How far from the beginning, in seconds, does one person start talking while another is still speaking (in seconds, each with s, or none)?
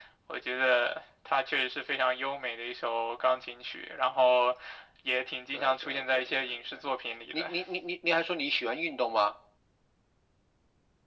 5.5 s